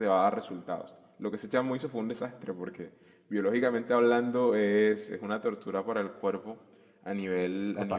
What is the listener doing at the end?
listening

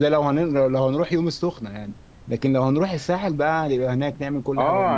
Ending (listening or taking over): taking over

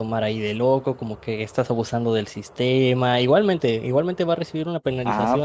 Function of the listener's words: taking over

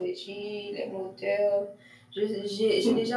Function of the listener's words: listening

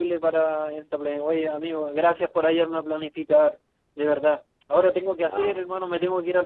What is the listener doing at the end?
listening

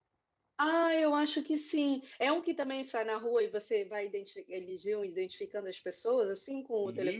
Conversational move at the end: taking over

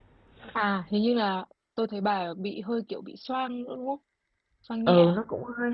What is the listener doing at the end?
taking over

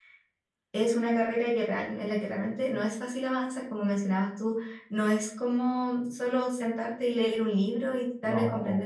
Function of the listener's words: listening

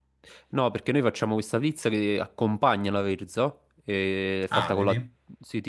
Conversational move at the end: listening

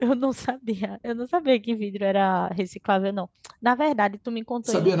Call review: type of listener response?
listening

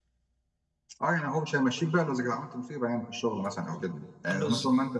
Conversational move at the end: listening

